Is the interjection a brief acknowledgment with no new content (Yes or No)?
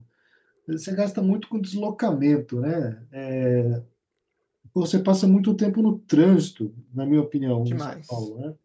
Yes